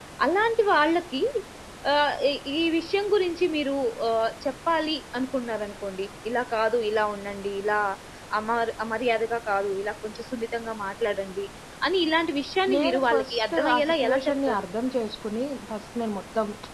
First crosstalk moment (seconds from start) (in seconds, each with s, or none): 12.7 s